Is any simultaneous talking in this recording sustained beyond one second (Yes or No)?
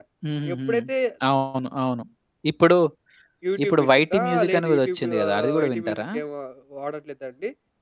Yes